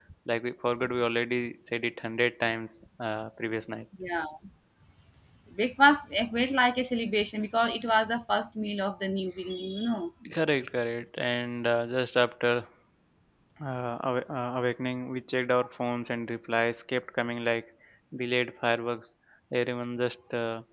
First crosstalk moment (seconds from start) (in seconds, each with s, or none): none